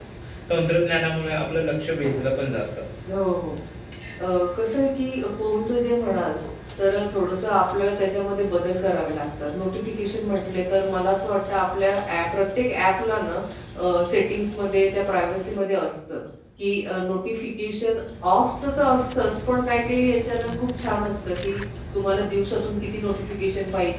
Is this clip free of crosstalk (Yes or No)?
Yes